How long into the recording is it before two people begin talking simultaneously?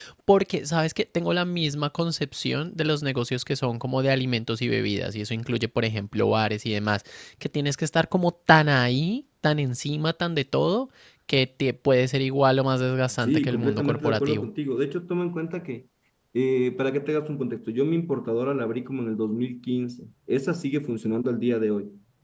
13 s

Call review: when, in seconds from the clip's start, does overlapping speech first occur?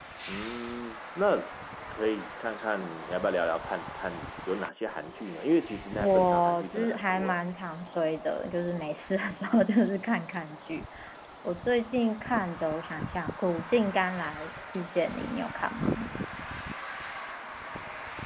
6 s

